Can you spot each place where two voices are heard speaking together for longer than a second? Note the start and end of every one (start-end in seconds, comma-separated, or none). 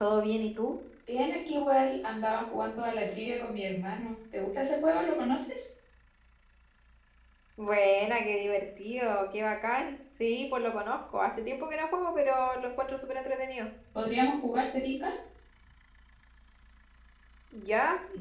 none